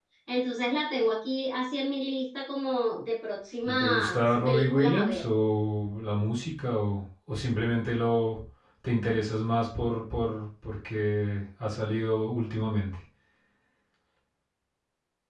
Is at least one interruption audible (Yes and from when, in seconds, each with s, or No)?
Yes, from 3.6 s